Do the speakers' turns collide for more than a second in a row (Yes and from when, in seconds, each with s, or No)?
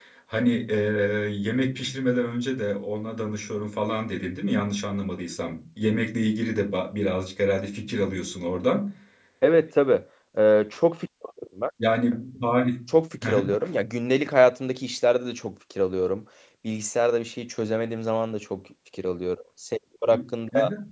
No